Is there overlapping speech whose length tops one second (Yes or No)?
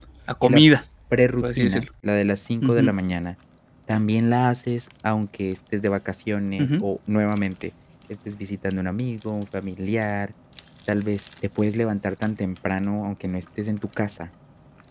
No